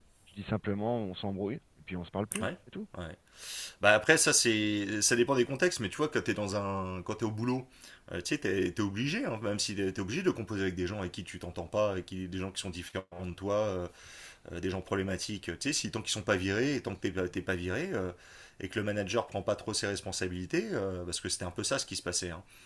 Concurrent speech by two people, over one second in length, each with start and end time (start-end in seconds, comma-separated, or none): none